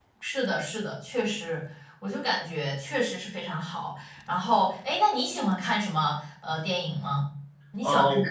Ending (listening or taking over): taking over